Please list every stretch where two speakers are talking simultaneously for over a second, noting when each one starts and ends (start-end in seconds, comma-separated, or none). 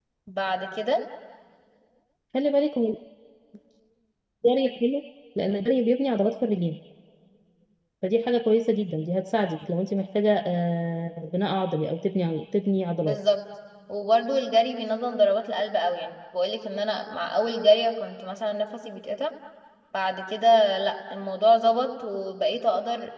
none